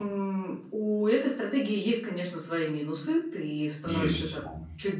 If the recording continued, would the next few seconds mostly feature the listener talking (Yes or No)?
No